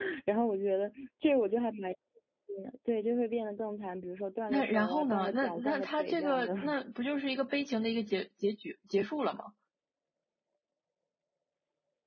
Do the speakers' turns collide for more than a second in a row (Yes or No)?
Yes